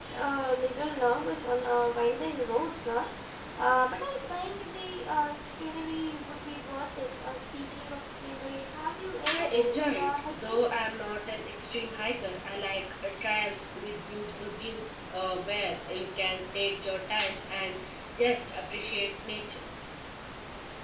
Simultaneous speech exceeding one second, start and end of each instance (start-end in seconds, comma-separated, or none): 9.3-10.6